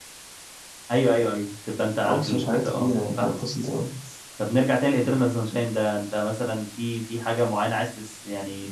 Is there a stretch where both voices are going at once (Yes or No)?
Yes